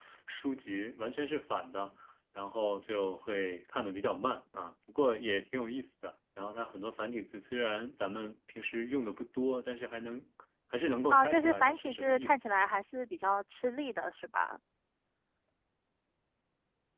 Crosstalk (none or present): present